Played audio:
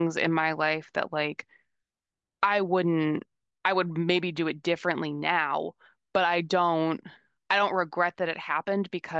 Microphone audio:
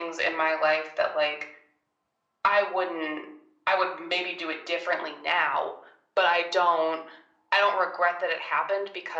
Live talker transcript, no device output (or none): none